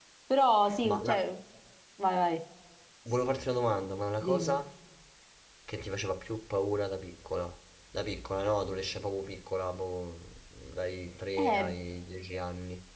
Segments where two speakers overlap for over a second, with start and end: none

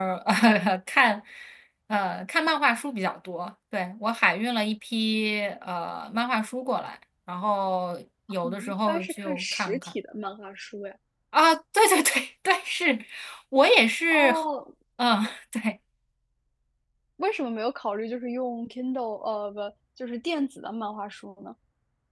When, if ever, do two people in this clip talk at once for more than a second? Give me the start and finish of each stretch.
8.4-9.9

